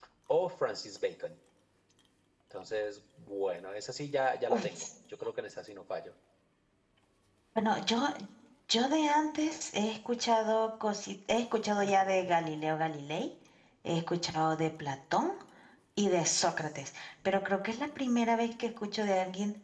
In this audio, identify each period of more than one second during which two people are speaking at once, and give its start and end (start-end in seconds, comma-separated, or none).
none